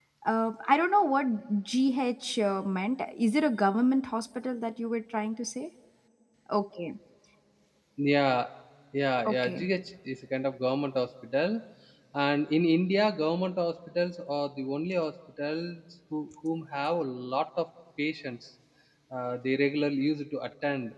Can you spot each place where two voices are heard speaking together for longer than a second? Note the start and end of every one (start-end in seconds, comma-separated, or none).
none